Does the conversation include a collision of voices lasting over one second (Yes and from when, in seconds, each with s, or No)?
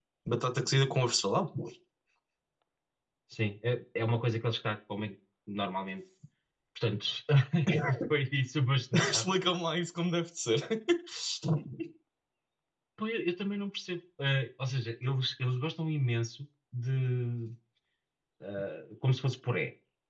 No